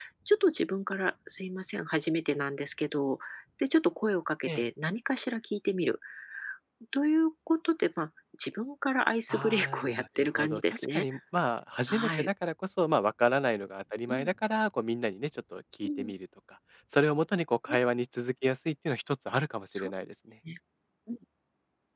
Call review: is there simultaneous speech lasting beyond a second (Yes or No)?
Yes